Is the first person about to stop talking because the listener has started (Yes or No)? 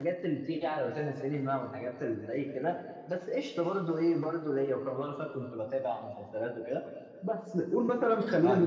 No